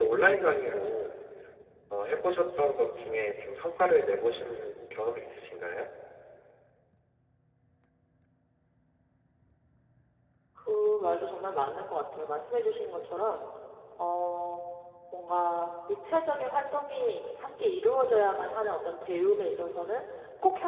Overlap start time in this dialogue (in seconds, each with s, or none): none